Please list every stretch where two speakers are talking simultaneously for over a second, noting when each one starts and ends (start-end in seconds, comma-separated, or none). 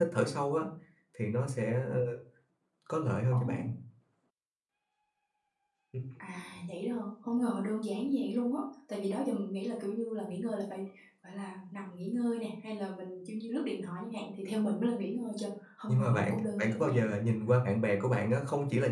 15.9-17.1